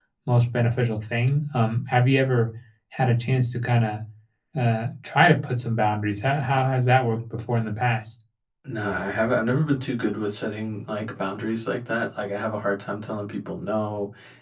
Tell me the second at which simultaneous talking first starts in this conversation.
none

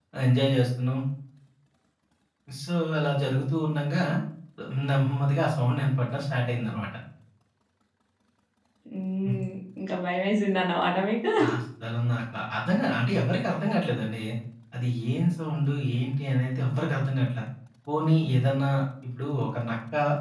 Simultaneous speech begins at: none

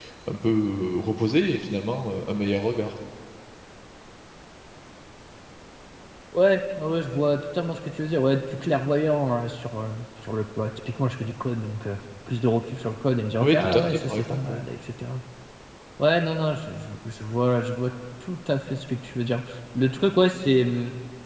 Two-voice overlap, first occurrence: 13.4 s

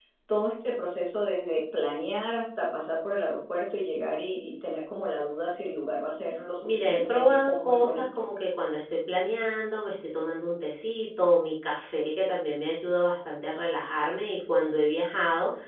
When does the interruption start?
6.6 s

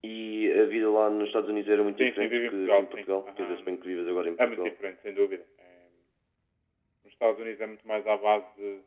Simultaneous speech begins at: 2.0 s

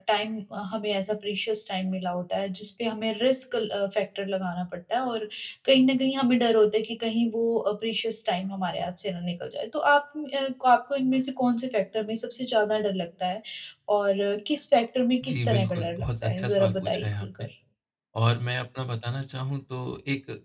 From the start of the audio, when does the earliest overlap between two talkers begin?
15.2 s

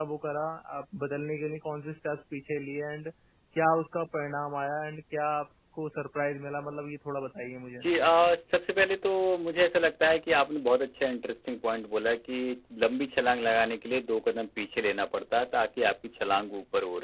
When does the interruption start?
none

